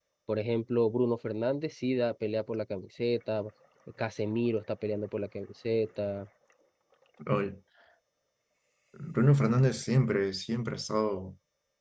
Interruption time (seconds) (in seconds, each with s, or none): none